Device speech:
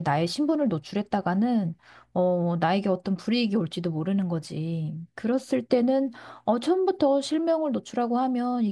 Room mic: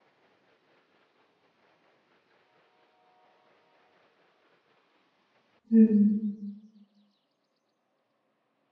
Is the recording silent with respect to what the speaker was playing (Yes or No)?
Yes